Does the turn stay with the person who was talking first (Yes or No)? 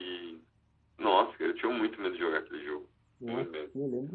No